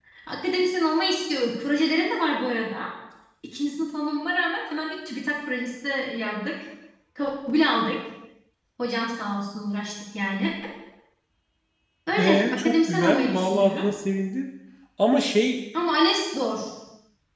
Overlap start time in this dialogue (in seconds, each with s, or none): 12.2 s